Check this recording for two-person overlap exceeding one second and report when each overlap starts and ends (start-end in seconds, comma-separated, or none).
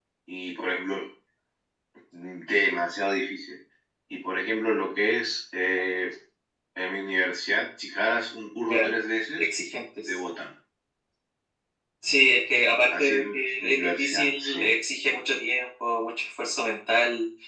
13.0-14.6